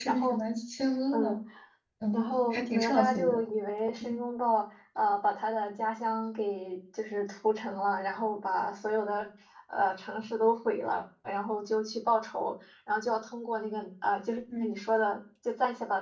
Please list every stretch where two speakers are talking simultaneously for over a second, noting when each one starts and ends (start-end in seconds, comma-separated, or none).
2.1-3.4